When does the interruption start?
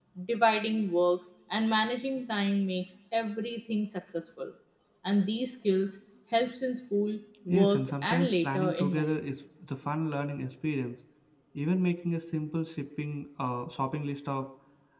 7 s

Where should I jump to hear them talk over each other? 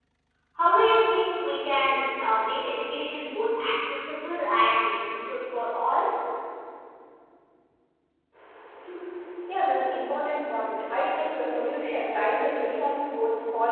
none

